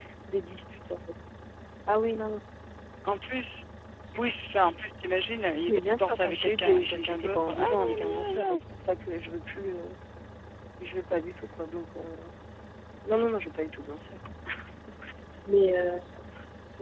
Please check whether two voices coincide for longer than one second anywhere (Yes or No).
Yes